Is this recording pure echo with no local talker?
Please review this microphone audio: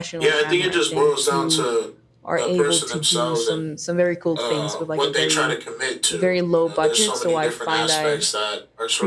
No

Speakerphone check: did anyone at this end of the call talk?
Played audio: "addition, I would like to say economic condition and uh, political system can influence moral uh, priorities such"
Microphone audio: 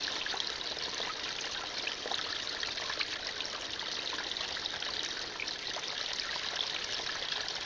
No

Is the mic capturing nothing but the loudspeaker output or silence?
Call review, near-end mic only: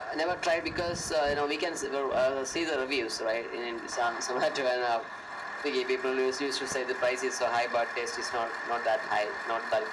Yes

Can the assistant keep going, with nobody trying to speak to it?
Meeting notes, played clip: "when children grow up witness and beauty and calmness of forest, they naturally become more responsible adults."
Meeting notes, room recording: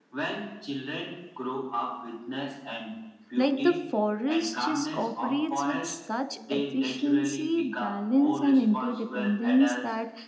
No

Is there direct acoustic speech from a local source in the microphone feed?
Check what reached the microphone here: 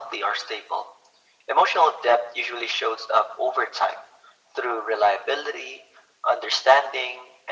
No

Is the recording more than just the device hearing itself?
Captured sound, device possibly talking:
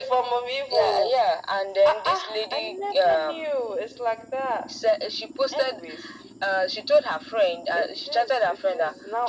No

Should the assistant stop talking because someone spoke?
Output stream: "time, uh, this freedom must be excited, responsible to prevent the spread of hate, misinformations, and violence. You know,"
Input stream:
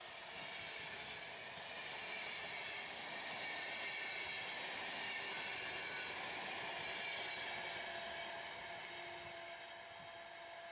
No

